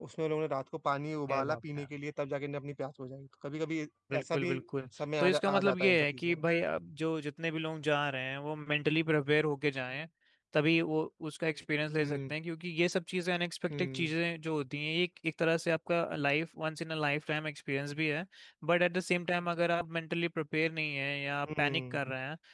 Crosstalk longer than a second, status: present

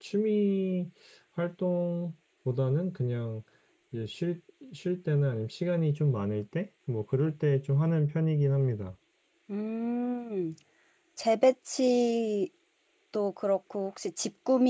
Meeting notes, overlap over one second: none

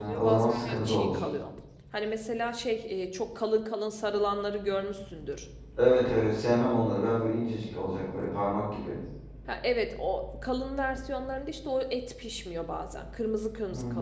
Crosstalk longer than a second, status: present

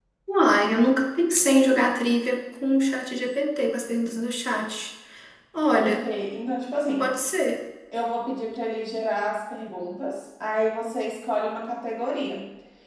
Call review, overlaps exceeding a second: none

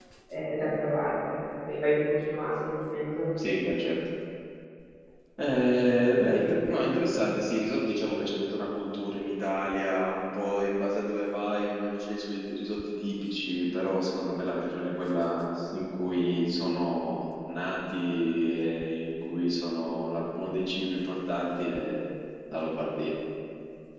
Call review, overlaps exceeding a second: none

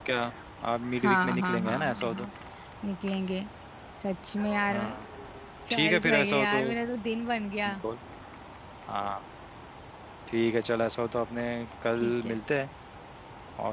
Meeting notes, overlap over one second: present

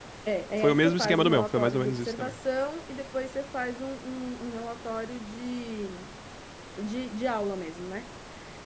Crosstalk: present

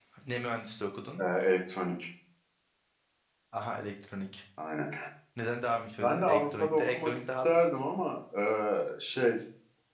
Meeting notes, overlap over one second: present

